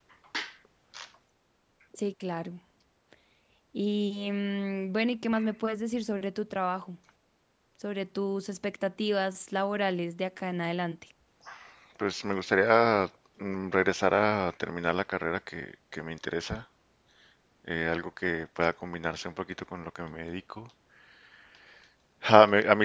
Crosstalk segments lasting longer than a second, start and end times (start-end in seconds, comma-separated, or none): none